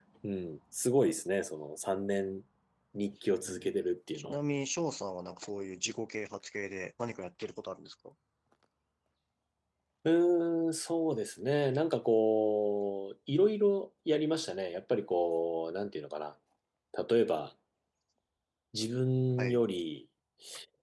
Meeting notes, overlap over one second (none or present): none